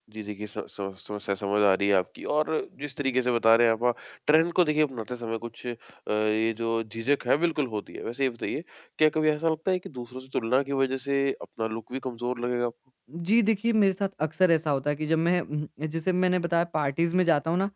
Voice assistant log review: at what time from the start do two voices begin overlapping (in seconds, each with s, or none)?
none